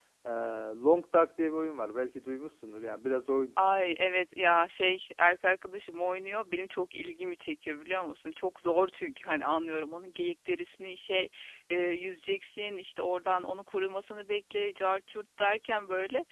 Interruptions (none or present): none